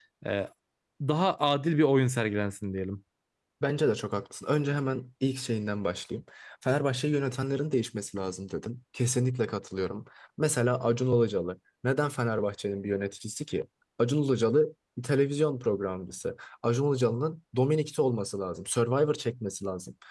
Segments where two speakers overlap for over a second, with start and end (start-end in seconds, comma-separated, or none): none